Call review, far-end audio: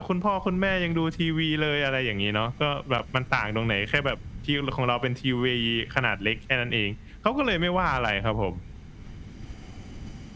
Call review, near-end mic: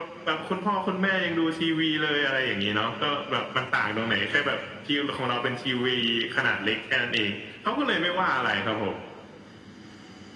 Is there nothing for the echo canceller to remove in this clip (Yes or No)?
No